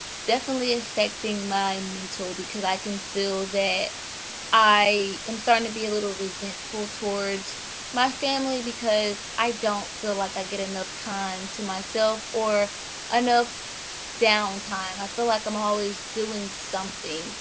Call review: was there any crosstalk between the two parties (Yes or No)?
No